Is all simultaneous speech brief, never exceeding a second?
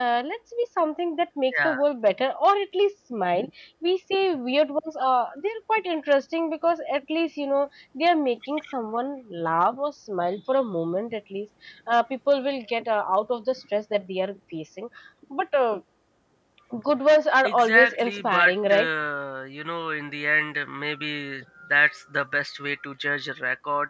No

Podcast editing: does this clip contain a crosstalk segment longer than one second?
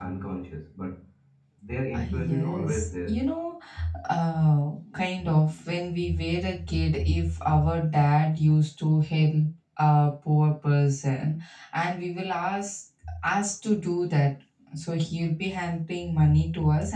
Yes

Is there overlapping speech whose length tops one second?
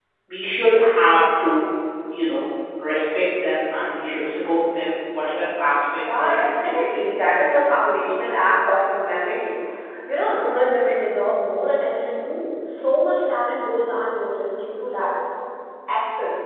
Yes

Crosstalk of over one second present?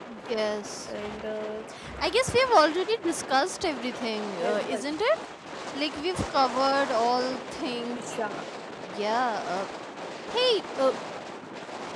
No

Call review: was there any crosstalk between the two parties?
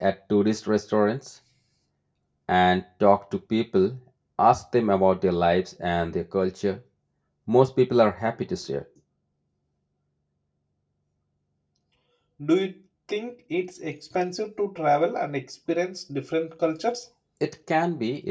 No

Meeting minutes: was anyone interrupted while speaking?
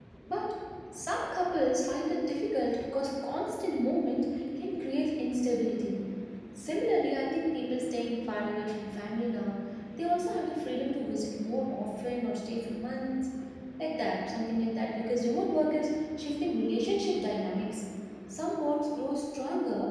No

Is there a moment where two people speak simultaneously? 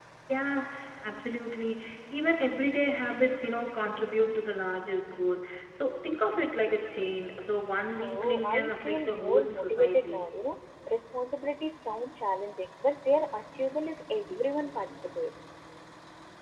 Yes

